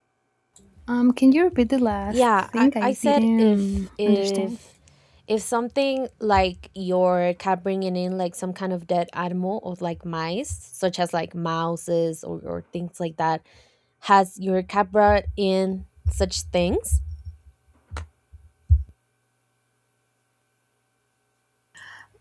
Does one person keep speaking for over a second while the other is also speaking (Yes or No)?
Yes